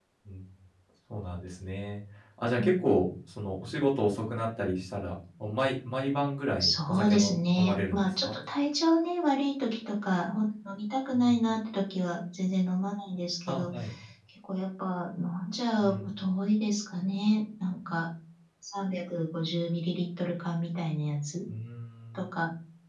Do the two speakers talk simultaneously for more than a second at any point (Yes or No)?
Yes